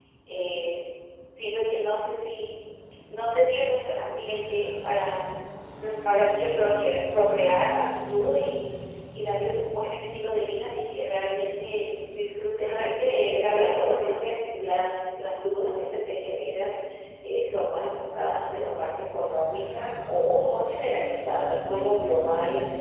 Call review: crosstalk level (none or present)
present